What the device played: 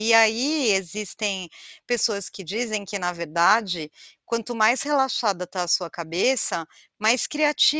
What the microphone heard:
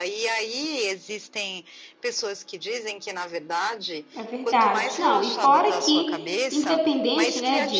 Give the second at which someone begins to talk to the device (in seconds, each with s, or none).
4.1 s